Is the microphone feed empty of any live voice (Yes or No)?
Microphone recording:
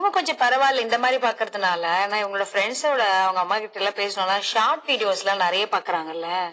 Yes